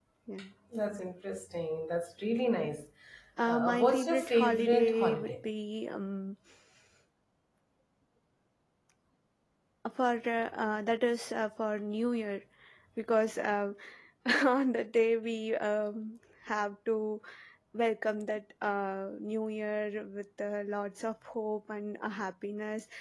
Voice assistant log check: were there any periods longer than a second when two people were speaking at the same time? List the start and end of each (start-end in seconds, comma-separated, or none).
3.4-5.3